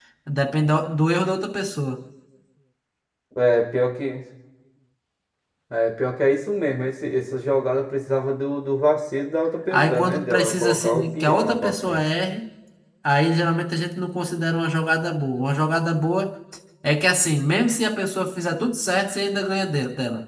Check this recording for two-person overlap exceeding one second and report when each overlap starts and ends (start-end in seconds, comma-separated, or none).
9.7-12.0